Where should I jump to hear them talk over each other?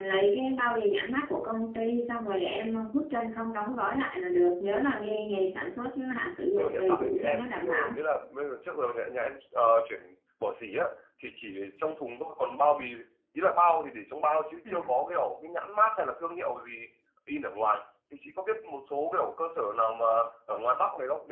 6.6 s

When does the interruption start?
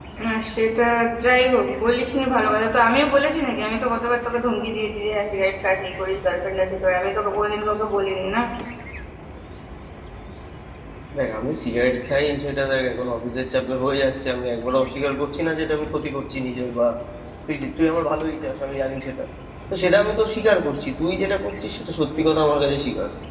none

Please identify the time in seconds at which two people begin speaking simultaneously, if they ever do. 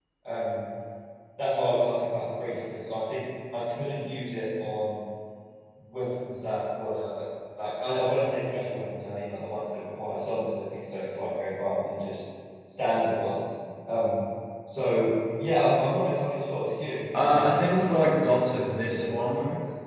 17.1 s

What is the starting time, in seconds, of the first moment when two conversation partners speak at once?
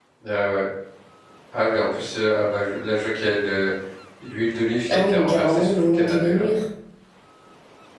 4.9 s

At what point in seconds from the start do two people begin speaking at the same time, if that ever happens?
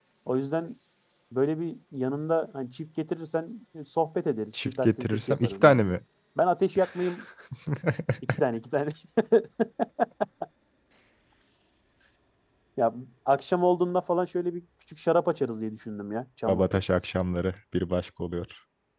4.6 s

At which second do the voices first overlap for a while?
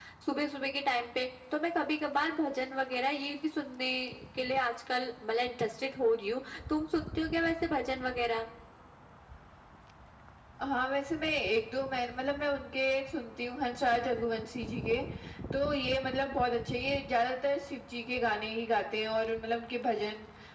none

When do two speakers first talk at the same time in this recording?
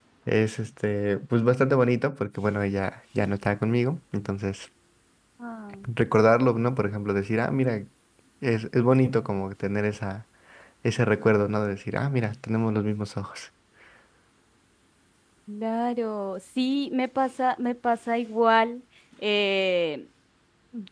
none

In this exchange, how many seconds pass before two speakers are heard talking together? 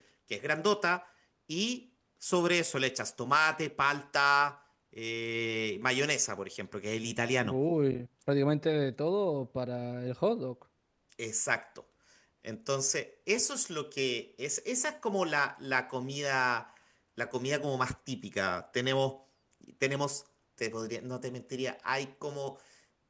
none

